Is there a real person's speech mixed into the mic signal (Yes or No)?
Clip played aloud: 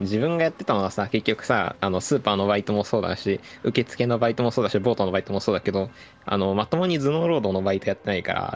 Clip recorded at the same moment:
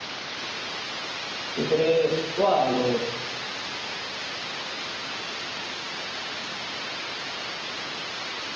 Yes